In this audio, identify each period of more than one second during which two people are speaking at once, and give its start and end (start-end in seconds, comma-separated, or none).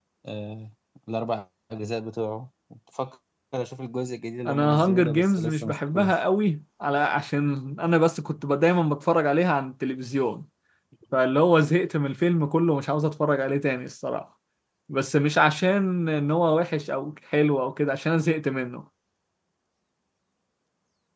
4.5-6.1